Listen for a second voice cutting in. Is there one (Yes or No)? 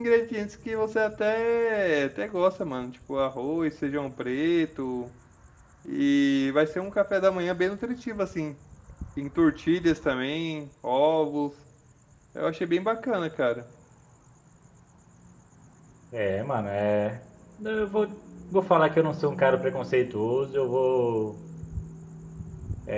No